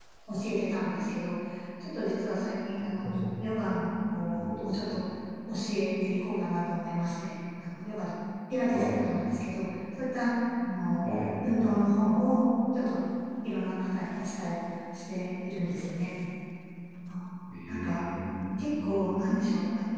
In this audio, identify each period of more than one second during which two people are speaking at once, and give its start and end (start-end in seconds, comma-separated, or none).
none